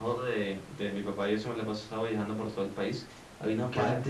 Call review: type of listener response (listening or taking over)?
listening